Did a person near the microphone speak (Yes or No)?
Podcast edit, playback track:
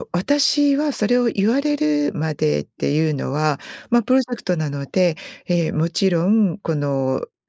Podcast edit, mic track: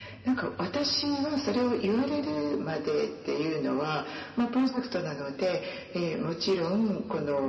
No